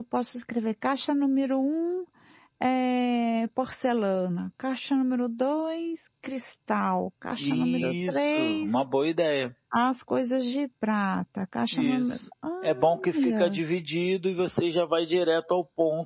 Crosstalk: present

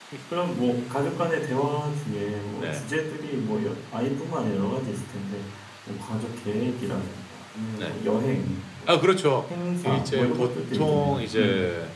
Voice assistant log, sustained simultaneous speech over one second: present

